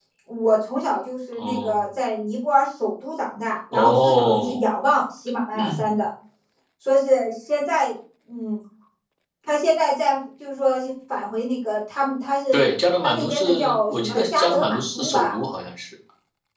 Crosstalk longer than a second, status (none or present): present